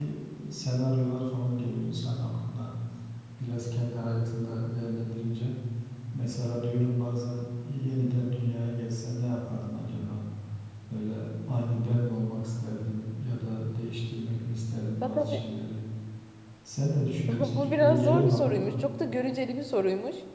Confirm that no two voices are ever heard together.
No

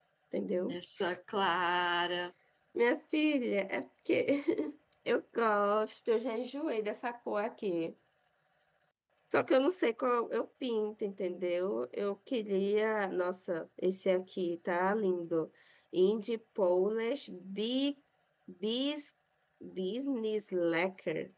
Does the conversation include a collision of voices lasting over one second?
No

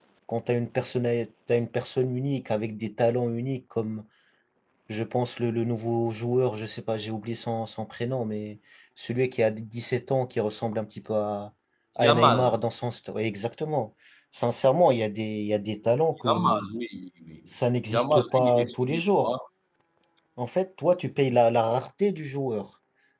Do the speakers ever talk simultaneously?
Yes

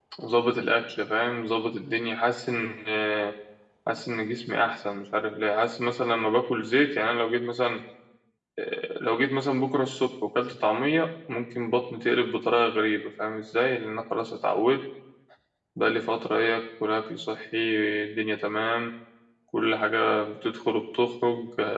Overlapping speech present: No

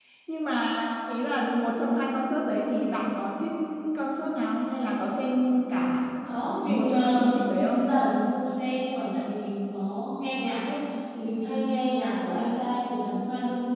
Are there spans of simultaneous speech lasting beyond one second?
Yes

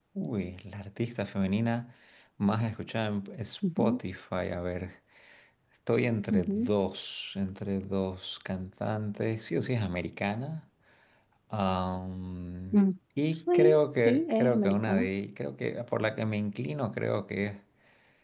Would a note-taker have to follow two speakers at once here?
Yes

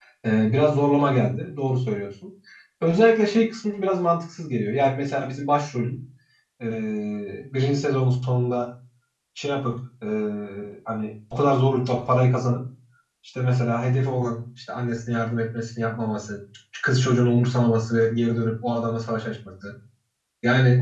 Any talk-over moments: No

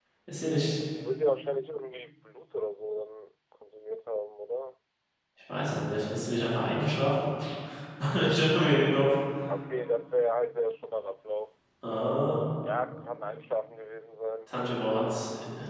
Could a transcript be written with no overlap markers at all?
Yes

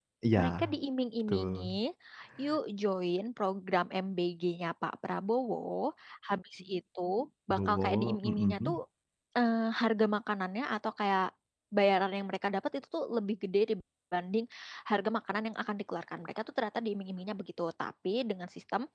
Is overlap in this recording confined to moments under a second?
No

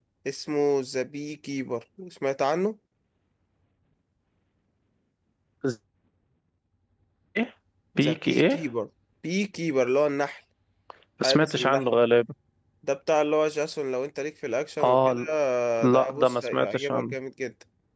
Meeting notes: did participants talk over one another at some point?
Yes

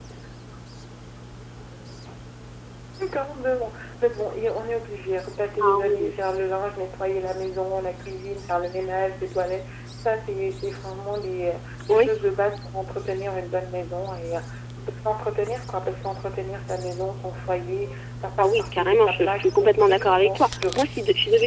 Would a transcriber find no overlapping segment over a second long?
No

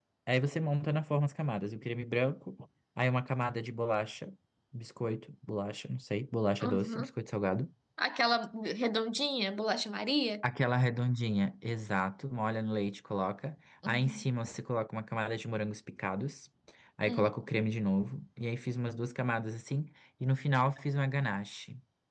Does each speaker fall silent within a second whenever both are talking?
Yes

